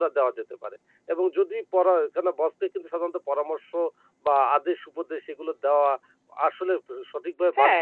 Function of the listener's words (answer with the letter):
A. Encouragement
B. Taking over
B